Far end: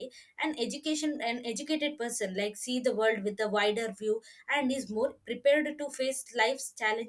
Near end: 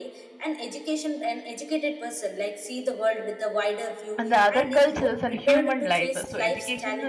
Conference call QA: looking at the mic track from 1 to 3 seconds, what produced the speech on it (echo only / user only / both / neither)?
echo only